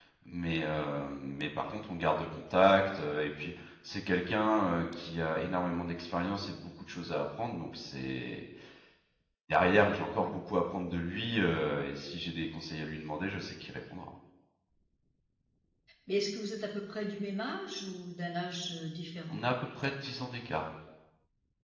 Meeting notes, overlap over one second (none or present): none